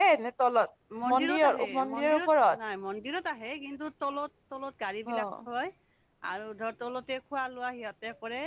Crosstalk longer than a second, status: present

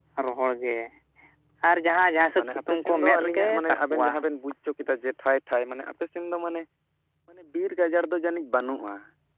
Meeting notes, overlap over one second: present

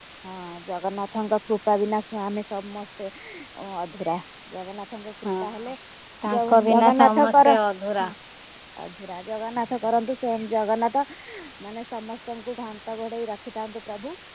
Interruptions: present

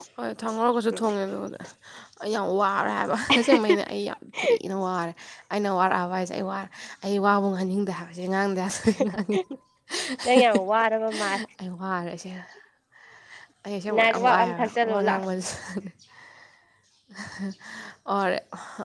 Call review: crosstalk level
present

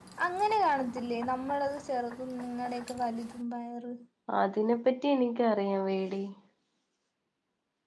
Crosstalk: none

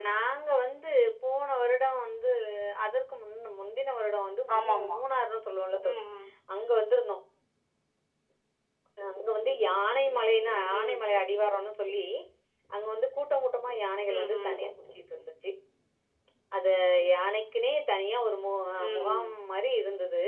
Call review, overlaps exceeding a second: none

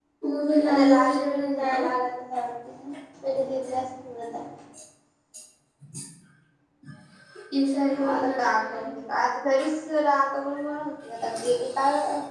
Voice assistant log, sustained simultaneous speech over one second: present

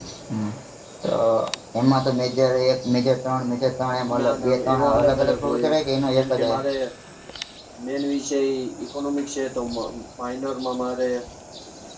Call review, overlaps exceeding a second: present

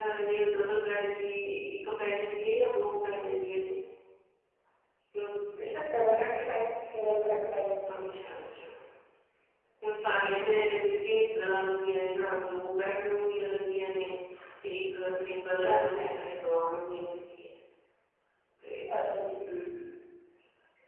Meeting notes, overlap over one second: none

